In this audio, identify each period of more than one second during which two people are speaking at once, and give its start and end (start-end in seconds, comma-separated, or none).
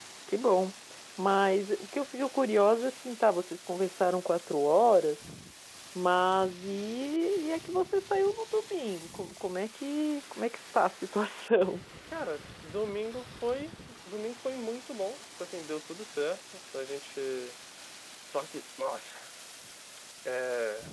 none